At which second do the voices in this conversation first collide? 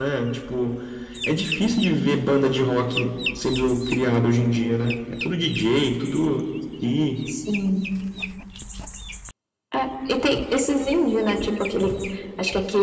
none

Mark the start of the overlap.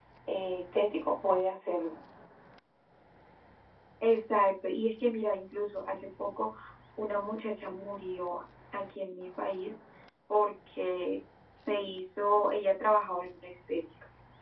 none

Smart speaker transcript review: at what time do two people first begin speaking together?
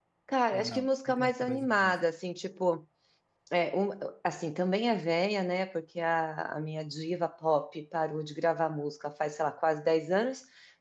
1 s

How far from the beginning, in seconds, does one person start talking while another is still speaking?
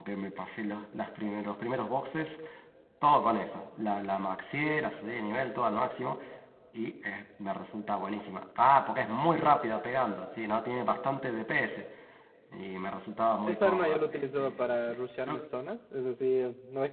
13 s

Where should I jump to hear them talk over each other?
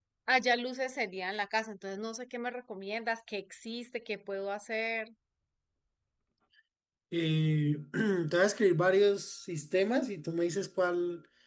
none

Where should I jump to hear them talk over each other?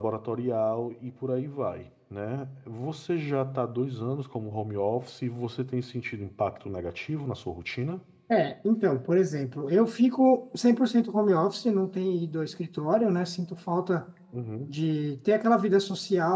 none

